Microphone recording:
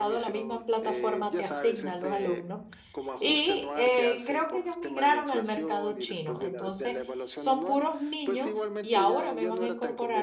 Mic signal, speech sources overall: both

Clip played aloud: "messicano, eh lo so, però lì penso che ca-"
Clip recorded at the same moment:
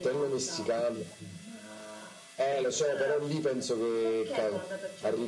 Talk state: both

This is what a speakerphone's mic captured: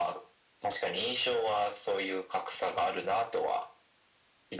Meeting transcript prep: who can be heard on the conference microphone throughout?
echo only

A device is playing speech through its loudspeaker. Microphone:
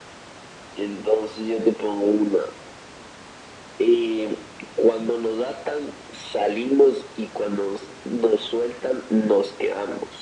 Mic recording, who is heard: echo only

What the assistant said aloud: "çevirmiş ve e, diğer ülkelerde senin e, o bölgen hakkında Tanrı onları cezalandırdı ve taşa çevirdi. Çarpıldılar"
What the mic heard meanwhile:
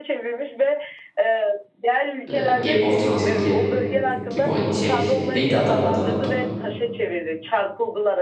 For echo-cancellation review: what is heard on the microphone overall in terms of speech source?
both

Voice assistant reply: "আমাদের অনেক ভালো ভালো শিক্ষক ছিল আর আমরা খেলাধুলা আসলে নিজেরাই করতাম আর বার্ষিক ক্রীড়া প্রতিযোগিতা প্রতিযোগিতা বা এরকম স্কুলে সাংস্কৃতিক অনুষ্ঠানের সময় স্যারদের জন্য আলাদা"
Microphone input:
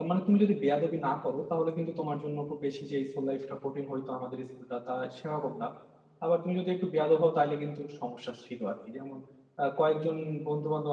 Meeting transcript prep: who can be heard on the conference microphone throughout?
user only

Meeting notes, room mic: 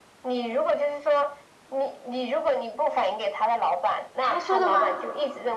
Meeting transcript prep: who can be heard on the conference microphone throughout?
both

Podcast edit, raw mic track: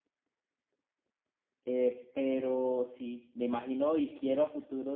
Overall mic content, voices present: user only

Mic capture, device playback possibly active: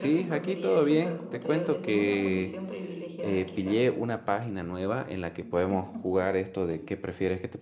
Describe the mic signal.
both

